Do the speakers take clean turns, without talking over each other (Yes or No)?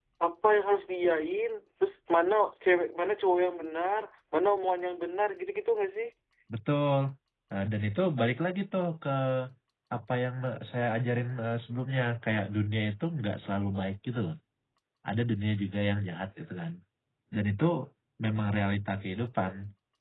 Yes